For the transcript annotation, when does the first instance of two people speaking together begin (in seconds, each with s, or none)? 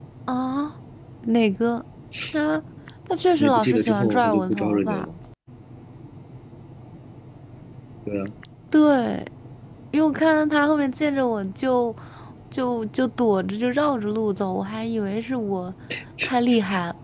3.4 s